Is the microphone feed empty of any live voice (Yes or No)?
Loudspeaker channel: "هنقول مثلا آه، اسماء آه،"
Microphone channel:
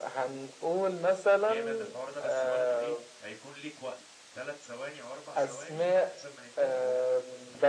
No